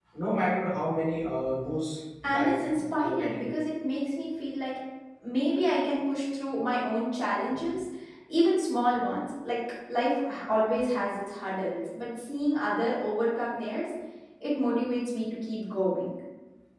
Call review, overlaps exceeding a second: present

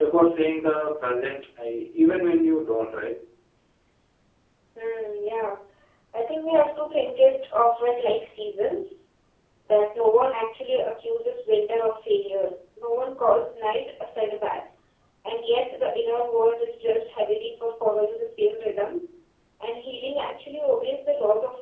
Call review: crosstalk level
none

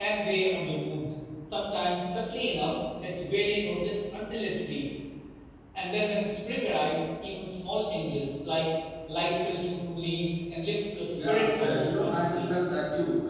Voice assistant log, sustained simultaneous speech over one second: present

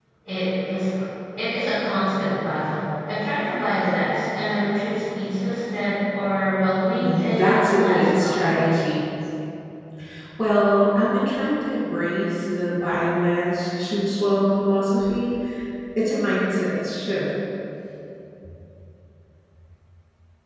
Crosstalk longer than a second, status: present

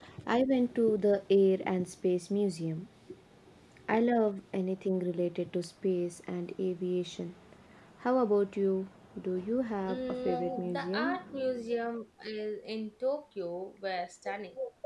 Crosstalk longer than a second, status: present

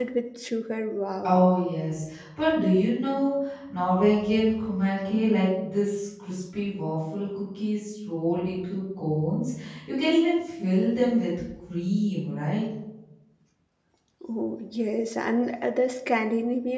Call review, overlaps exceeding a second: none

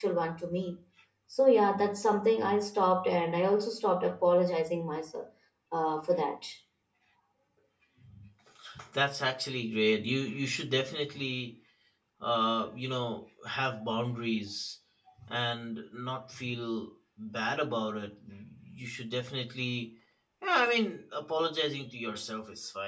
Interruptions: none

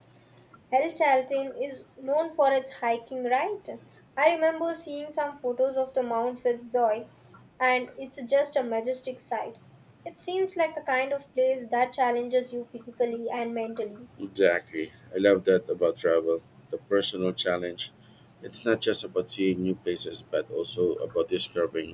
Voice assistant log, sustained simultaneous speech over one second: none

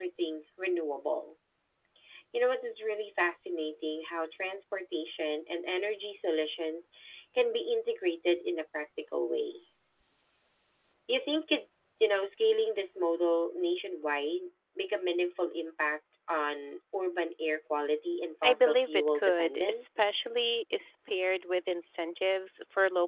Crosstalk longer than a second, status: present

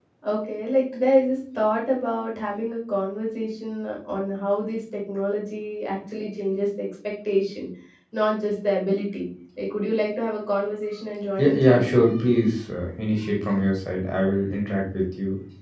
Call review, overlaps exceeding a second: none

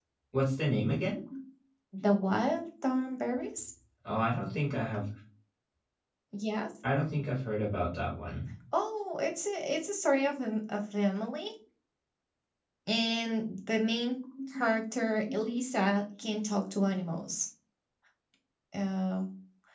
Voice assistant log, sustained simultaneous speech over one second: none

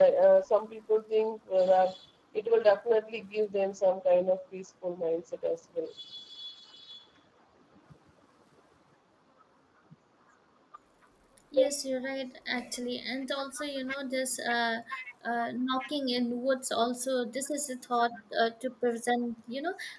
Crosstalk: none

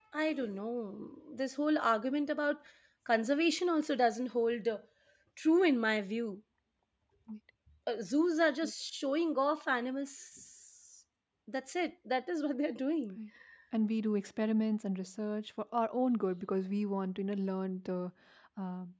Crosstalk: none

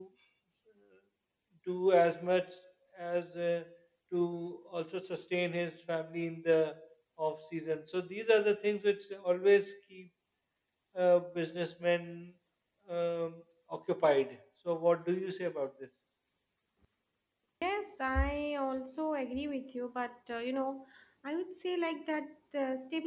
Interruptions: none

